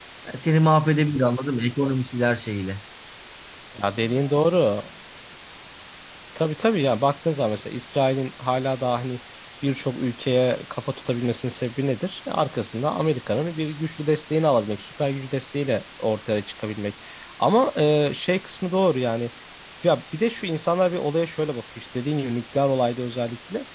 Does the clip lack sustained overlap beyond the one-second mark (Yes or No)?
Yes